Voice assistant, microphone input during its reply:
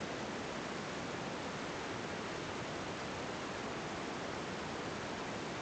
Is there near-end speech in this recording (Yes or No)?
No